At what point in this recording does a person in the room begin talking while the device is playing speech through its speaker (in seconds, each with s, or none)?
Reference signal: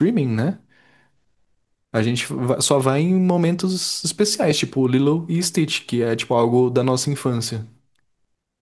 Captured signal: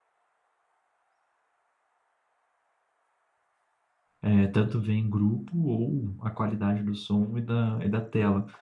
4.2 s